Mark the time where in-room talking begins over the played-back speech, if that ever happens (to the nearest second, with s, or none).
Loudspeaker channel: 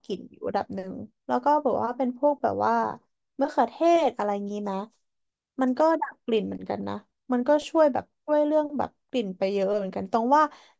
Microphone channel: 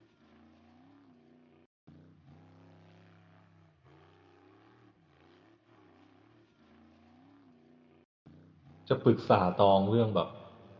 9 s